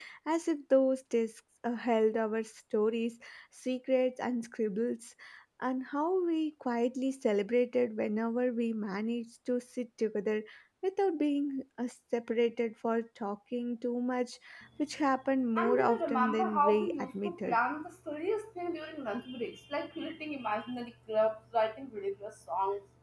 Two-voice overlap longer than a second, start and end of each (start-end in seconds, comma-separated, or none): 15.6-17.6